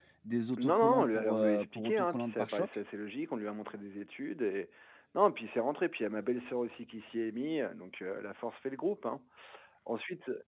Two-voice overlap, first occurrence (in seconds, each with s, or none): 0.6 s